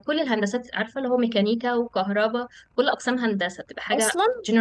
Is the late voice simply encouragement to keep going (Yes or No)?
No